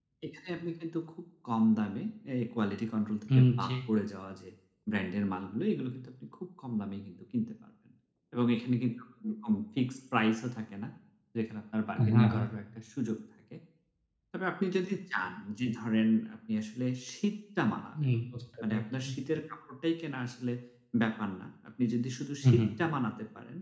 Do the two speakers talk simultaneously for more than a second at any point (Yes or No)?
No